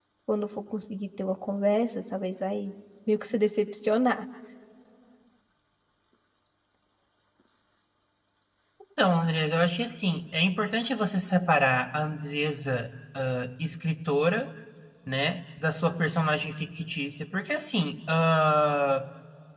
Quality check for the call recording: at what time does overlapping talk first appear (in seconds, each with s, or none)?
none